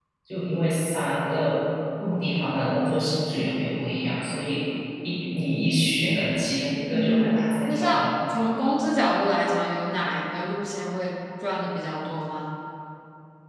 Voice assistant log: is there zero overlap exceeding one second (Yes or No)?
No